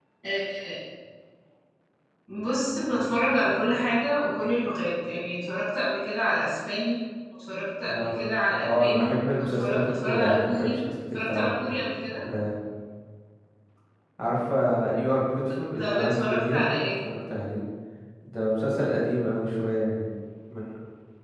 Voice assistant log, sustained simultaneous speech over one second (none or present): present